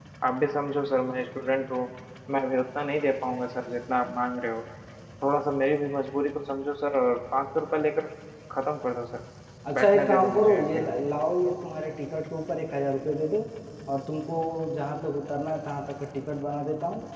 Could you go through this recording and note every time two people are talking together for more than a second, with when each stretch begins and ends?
9.7-10.9

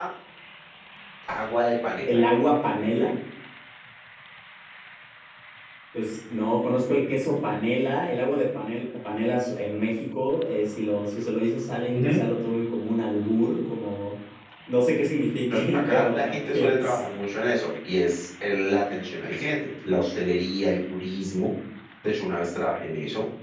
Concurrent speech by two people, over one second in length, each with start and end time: 15.5-17.0

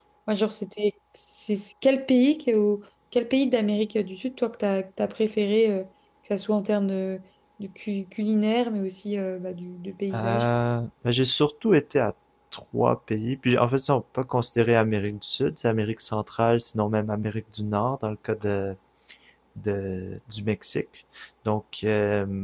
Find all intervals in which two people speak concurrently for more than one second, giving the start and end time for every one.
none

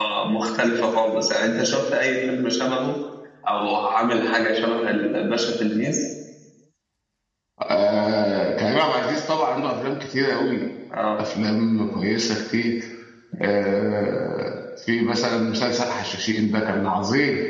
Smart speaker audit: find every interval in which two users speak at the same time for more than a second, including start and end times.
none

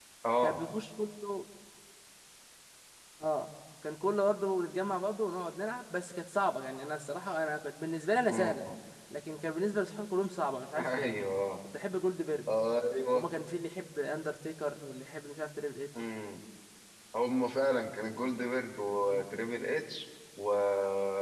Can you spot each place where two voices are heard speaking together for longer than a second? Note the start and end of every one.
none

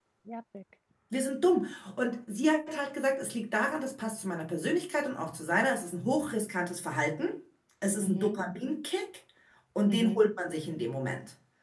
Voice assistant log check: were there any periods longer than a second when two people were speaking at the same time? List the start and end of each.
none

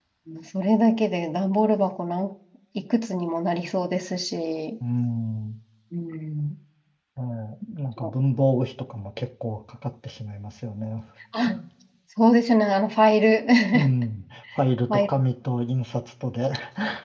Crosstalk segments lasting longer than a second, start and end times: none

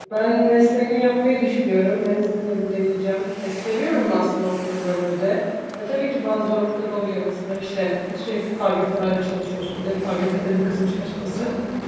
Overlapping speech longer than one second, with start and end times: none

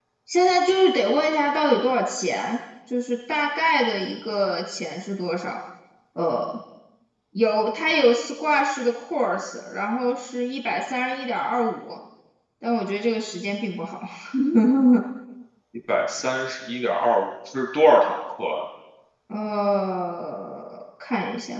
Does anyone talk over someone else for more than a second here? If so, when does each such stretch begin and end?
none

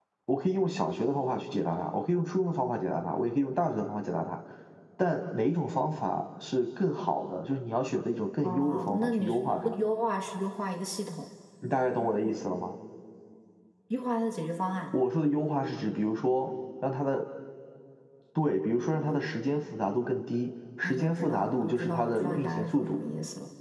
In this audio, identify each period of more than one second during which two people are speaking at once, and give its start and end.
8.4-9.7, 20.8-23.0

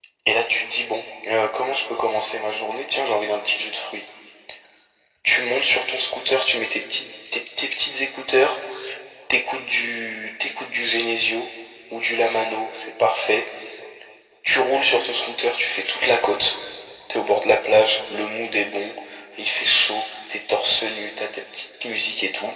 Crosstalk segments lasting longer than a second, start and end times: none

